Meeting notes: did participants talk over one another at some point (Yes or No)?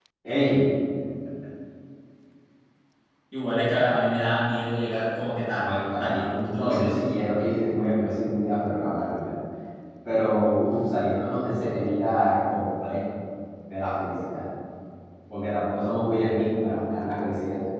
Yes